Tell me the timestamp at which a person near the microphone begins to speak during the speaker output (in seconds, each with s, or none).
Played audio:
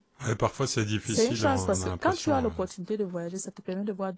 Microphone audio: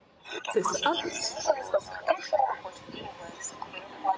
0.5 s